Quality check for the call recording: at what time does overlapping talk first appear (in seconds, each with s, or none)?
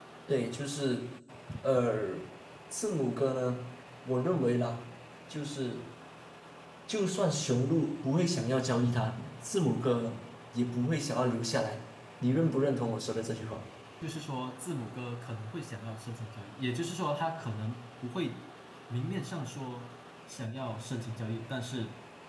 none